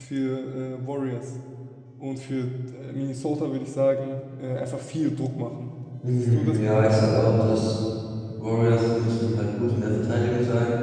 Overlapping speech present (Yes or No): Yes